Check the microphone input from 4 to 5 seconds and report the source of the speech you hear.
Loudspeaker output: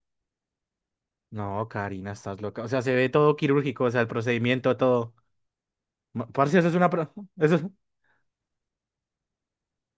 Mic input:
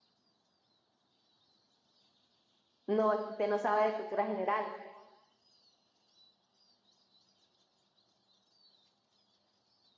user only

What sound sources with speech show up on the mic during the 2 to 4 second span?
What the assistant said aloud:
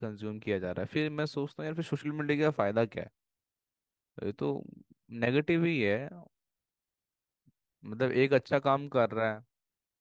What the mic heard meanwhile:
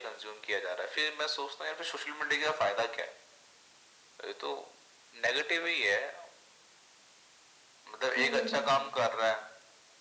echo only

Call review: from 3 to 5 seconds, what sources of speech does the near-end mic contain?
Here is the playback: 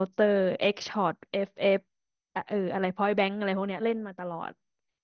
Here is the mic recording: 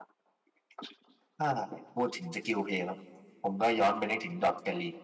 user only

